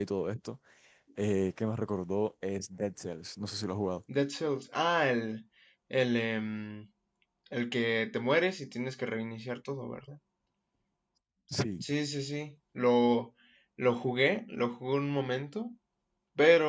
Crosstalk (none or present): none